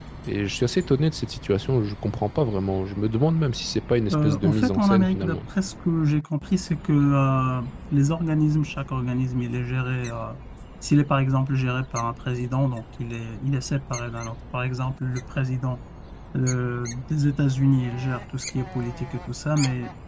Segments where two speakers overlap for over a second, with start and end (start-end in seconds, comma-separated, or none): 4.1-5.4